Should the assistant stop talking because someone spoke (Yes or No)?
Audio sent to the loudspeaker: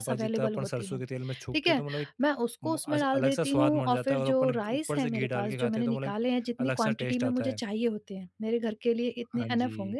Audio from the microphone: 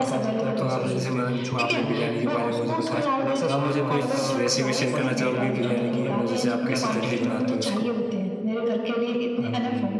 Yes